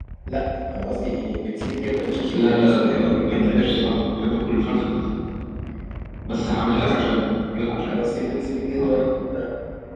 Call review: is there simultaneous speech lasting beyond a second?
Yes, from 2.3 s

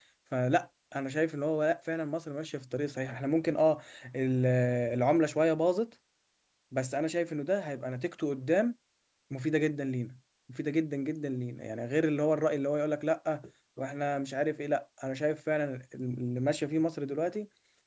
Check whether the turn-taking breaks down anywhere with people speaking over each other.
No

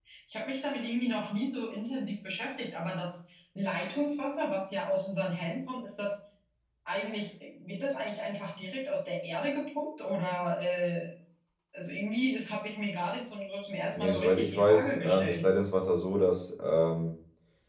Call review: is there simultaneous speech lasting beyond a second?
Yes, from 13.9 s

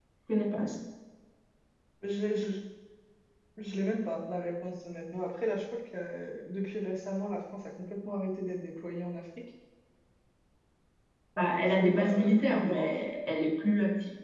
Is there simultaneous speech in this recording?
Yes, from 11.4 s

